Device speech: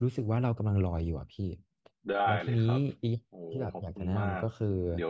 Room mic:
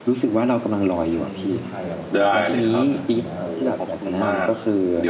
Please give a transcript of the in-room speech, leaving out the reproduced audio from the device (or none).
ทะเลที่ไทยอ่ะผมว่าสวยมากนะครับถึงแม้แบบ